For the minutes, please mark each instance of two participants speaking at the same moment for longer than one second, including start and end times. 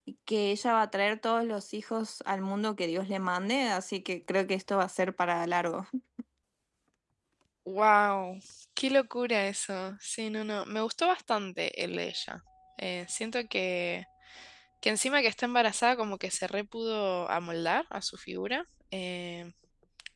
none

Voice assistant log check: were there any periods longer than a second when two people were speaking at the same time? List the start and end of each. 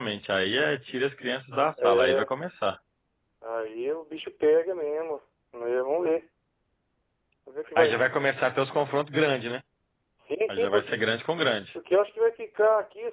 none

